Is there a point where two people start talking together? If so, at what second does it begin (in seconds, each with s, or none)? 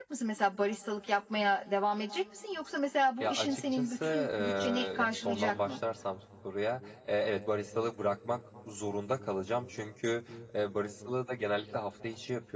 3.2 s